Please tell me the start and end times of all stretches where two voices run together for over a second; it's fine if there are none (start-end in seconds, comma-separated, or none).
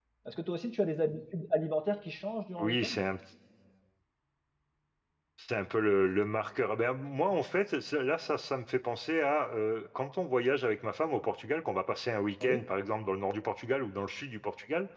none